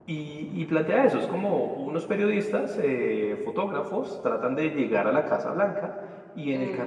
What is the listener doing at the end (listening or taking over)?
listening